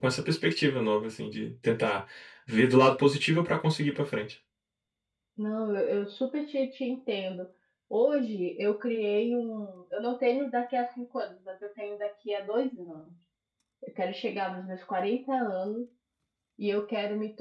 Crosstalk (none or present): none